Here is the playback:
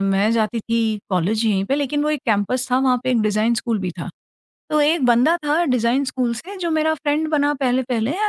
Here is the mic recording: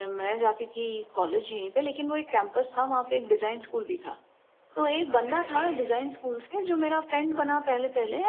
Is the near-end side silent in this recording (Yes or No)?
No